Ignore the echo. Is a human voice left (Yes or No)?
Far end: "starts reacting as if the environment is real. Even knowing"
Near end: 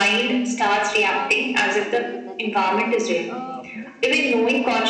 Yes